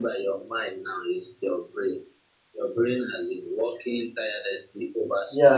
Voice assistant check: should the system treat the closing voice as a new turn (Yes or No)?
No